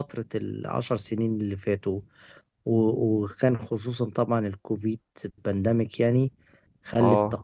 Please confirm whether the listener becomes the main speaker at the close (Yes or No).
No